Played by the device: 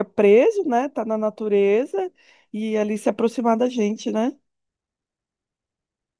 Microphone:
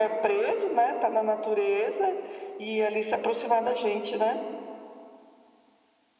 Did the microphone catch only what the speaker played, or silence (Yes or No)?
Yes